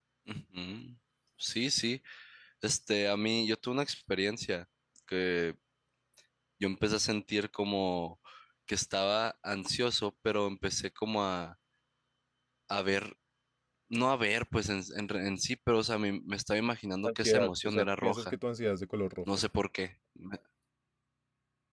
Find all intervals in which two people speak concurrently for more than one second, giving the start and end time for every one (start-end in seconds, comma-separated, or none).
17.0-18.3